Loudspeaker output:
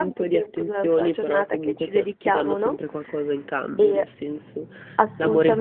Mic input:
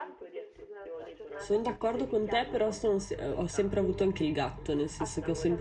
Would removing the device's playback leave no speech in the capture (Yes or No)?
No